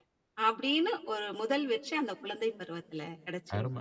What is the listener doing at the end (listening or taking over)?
taking over